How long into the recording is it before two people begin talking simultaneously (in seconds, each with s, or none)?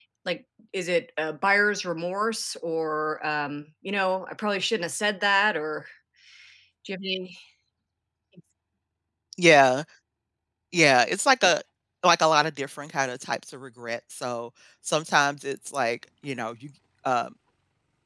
none